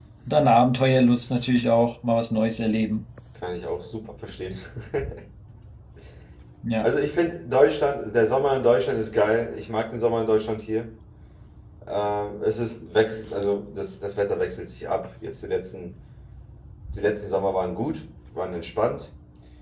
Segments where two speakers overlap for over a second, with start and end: none

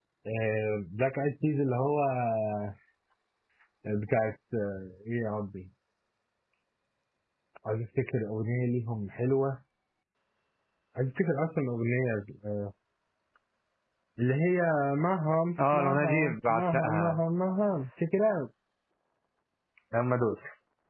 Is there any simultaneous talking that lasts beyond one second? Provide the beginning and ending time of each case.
15.7-17.2

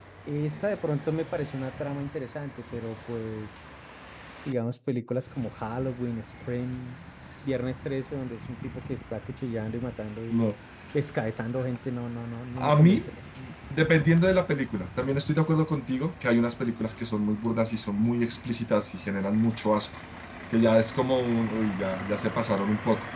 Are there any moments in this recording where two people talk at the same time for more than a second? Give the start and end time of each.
none

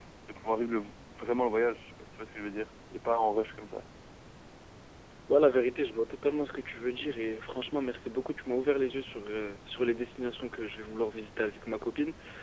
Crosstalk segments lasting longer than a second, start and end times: none

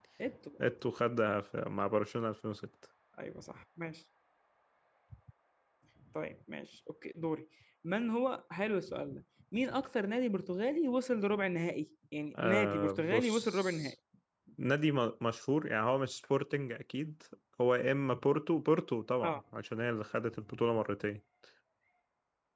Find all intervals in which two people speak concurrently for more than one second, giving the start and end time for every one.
12.4-13.7

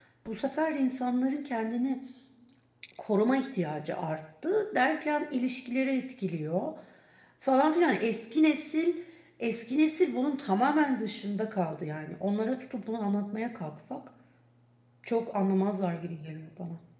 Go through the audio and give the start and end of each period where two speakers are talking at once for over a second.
none

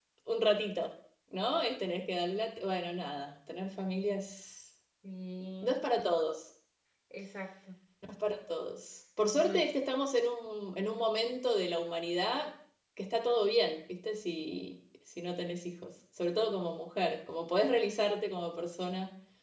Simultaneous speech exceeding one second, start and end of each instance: none

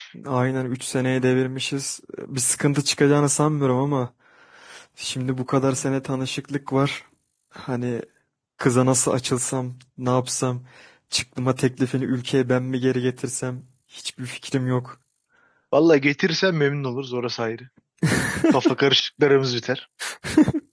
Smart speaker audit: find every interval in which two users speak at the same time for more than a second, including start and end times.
none

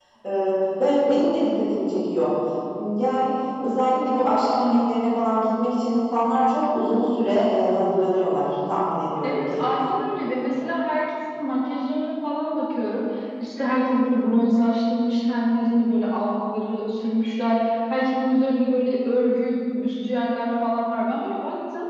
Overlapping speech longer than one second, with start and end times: none

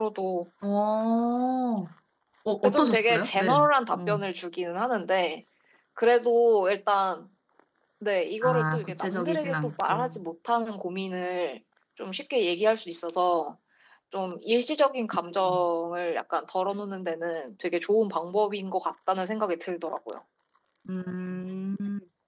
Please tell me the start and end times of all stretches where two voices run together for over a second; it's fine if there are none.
2.6-4.2, 8.4-10.2

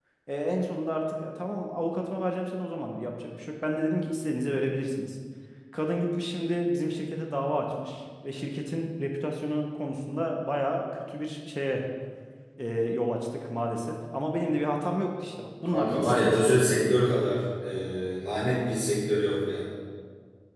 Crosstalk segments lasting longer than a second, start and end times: 15.7-17.0

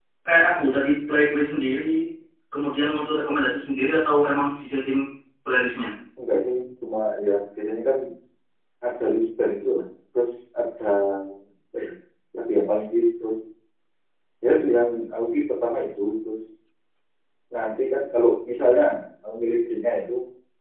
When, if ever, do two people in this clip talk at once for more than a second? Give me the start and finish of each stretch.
none

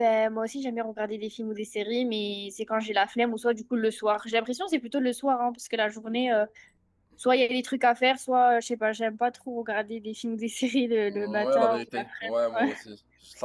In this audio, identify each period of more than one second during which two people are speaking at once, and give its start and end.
11.1-12.7

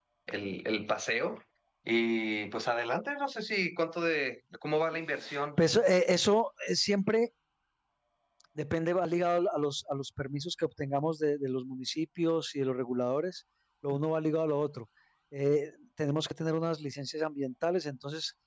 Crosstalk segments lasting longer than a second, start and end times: none

